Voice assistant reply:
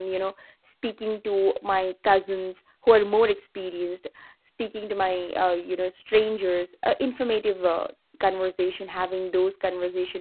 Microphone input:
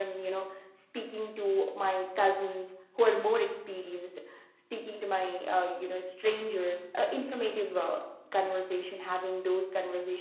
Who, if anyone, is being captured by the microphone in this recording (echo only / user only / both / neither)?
echo only